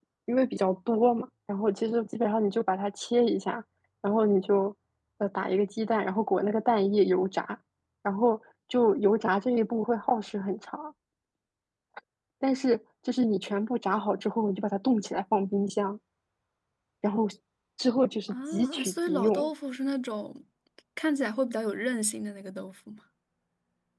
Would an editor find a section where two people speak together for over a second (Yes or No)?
Yes